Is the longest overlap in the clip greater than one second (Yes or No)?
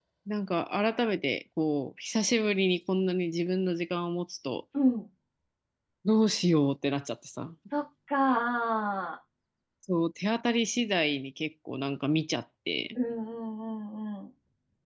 No